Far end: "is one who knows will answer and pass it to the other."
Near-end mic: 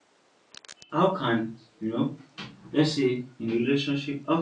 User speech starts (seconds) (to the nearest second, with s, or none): 1 s